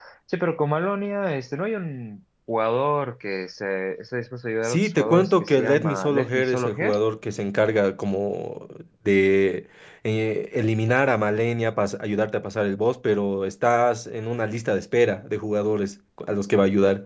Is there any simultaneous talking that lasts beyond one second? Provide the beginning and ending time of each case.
4.6-7.0

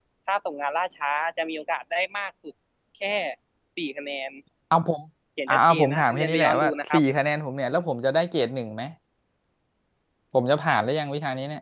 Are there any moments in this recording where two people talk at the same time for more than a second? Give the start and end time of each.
5.5-7.0

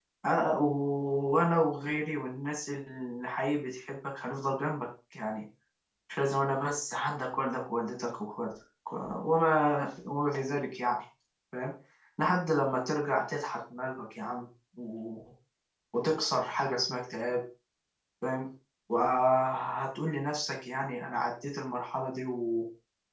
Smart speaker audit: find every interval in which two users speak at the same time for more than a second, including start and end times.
none

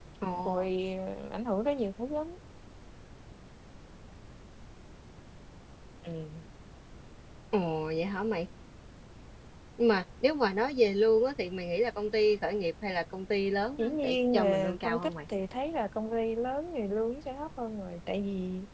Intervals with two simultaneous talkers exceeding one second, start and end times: 13.8-15.1

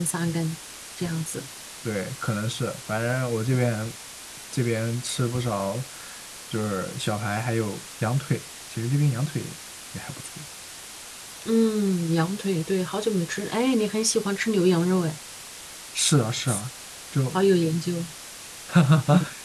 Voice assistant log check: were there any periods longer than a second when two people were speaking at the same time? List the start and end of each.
none

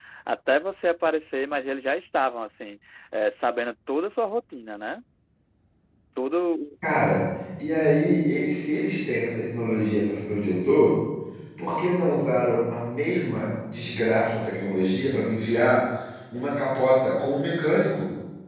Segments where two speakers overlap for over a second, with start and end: none

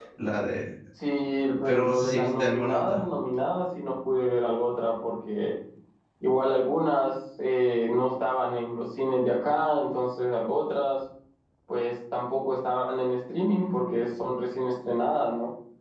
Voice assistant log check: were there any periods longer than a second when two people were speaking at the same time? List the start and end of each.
1.6-3.0

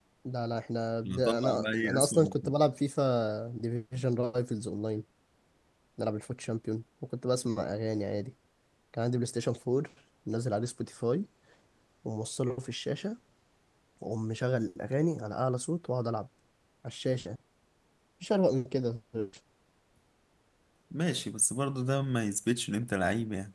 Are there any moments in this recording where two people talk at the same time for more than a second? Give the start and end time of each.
1.1-2.5

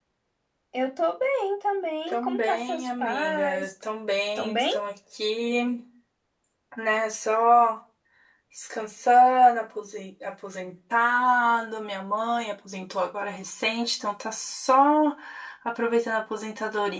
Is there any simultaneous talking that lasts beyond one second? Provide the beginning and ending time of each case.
2.1-3.7

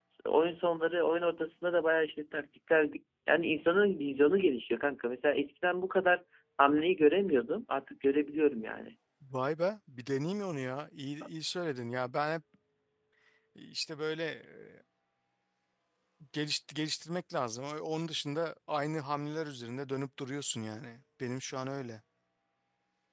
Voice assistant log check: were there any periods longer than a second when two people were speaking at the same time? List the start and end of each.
none

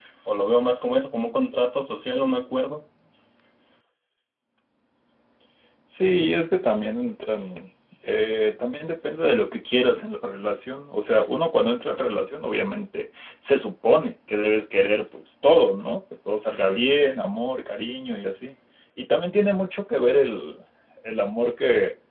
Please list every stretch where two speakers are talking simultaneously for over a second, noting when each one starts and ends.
none

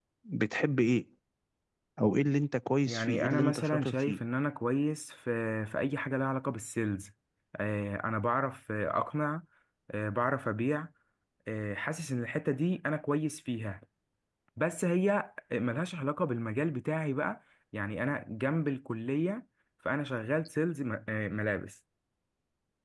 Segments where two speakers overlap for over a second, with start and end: 2.9-4.2

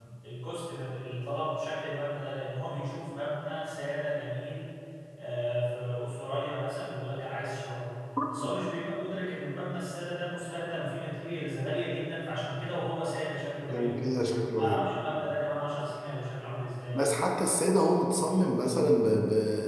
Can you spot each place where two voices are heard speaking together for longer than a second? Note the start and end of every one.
none

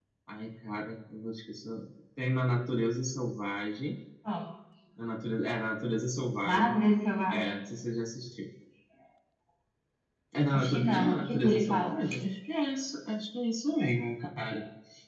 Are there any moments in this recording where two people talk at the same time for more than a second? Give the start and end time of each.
10.5-12.0

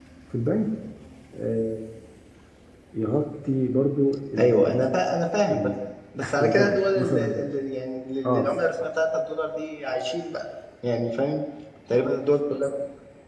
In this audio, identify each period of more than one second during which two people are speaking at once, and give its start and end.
6.2-7.5

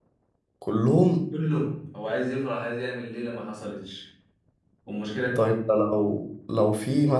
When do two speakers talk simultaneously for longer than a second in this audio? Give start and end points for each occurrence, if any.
none

